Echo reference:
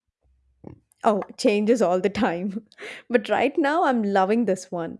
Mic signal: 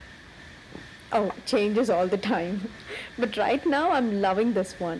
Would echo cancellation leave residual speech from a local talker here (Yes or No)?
No